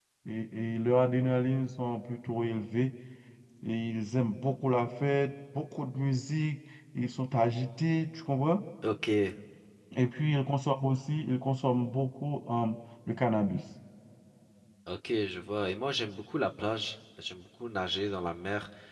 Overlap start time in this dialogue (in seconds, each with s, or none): none